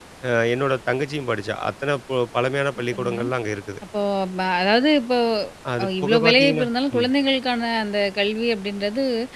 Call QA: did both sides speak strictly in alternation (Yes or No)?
No